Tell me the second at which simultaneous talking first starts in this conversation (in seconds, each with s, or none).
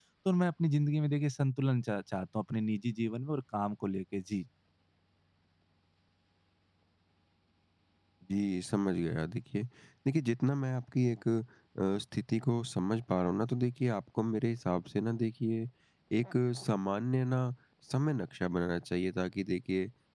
none